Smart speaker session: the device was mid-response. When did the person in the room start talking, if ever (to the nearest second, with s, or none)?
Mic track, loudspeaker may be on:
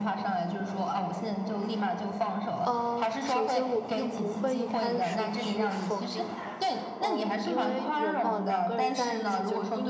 3 s